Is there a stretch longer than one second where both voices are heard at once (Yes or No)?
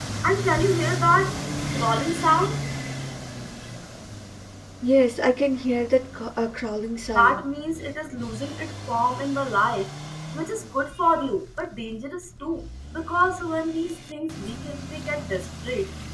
No